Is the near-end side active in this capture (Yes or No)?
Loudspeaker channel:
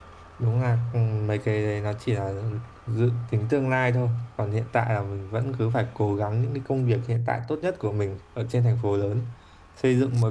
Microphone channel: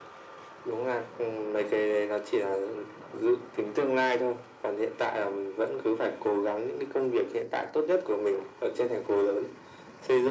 No